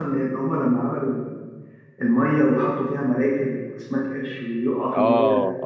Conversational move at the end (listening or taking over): taking over